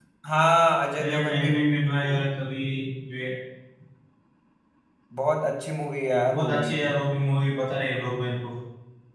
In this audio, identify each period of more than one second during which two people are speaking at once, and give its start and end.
1.0-2.2

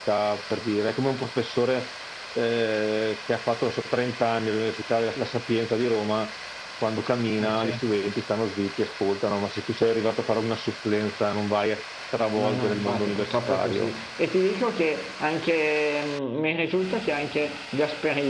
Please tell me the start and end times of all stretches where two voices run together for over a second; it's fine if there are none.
12.4-14.0

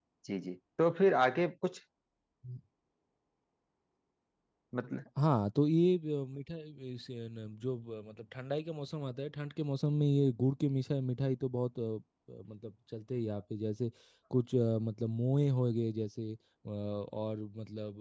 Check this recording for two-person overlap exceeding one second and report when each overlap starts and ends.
none

